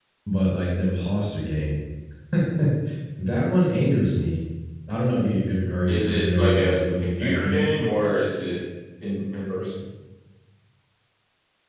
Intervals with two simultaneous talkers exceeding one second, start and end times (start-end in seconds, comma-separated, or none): 5.9-7.7